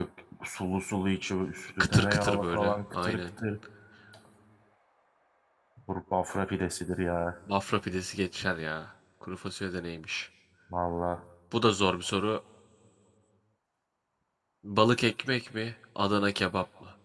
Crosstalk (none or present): present